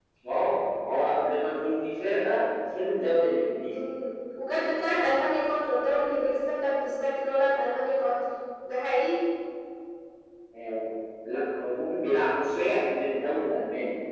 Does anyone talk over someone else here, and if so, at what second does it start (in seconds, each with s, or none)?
none